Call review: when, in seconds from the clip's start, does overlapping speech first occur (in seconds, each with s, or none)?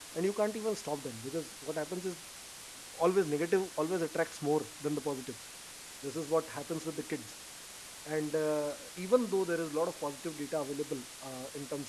none